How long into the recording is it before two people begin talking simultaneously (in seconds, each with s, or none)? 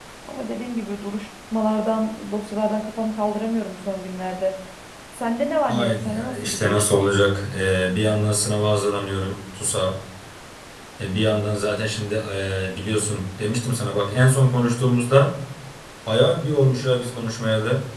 5.7 s